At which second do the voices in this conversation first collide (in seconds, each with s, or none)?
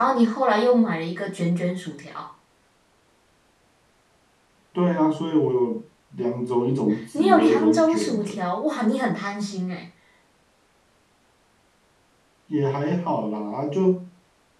7.1 s